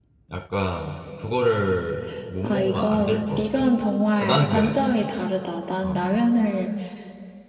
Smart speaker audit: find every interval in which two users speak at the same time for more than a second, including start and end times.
2.4-3.7

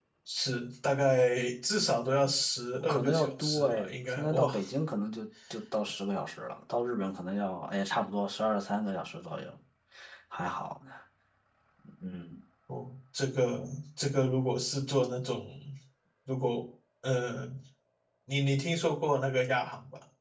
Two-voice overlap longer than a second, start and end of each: 2.9-4.5

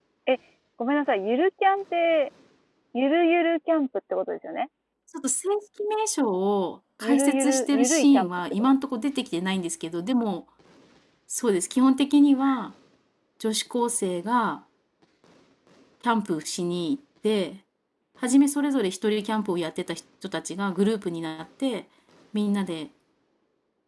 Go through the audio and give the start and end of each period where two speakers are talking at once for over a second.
7.0-8.7

